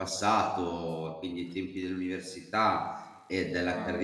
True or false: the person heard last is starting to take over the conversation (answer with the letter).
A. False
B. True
A